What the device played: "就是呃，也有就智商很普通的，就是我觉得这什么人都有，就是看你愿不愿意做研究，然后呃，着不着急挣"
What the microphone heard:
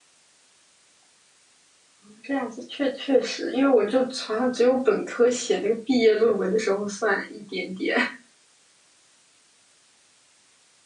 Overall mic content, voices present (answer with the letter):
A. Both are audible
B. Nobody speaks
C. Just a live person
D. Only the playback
C